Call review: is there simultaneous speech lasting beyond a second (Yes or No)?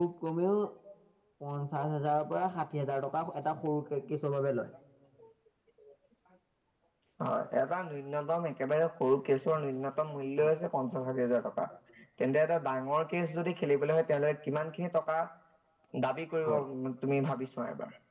No